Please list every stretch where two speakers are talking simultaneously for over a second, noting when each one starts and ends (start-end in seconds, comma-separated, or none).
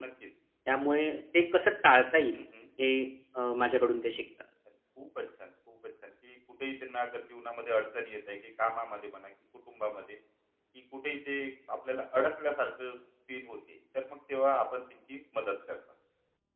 none